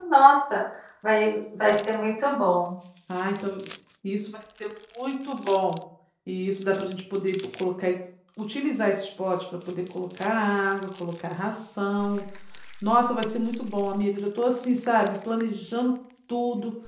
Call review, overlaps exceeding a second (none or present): none